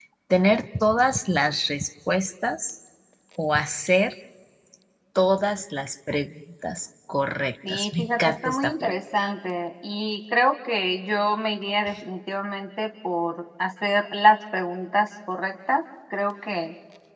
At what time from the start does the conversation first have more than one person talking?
8 s

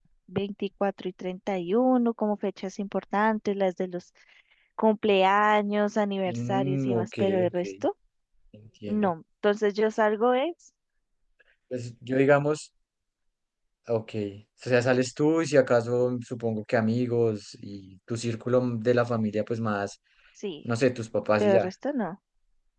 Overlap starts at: 6 s

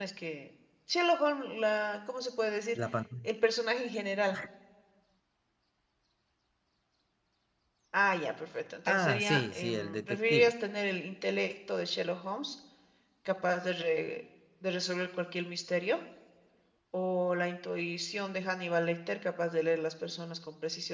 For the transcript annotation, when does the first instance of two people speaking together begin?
9 s

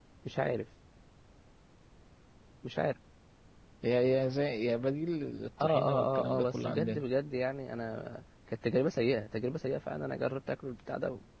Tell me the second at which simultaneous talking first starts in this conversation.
6 s

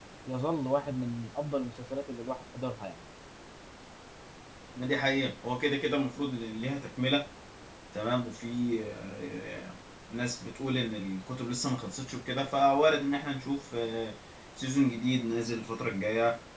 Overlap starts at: none

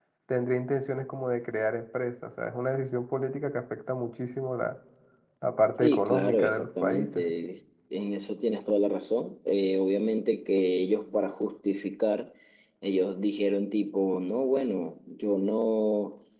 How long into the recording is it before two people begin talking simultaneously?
6 s

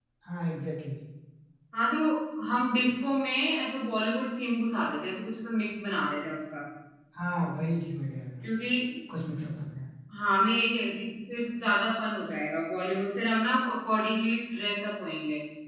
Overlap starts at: none

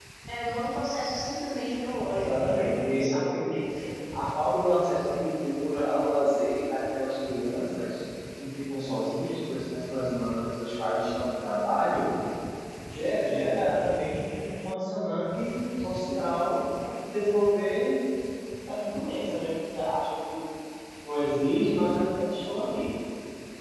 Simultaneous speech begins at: 2 s

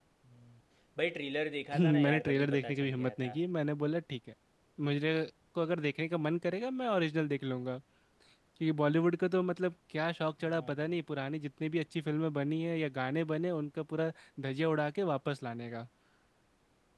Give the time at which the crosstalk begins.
2 s

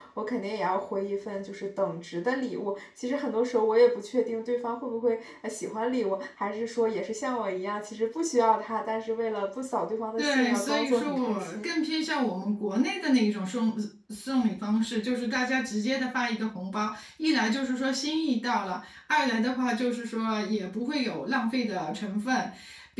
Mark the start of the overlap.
10 s

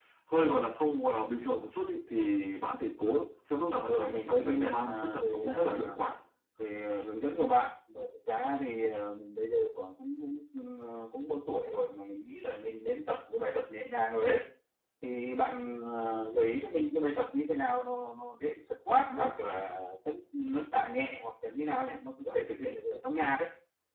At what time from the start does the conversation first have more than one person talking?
4 s

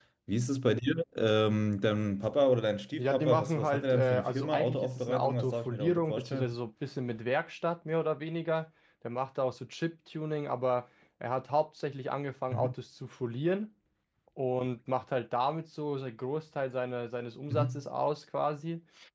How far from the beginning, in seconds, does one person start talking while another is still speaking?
3 s

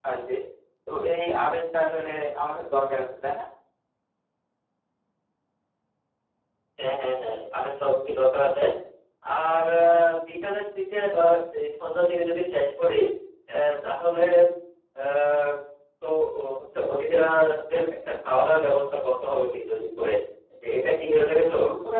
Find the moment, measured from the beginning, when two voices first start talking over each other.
none

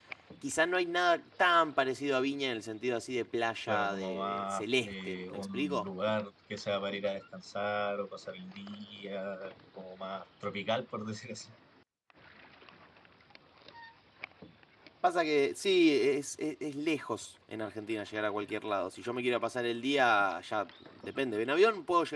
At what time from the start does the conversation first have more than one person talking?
4 s

